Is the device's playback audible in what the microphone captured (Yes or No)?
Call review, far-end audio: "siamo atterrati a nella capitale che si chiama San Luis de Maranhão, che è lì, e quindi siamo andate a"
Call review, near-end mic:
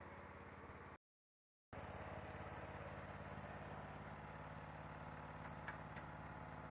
No